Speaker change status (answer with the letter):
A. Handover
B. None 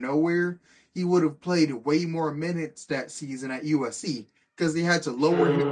B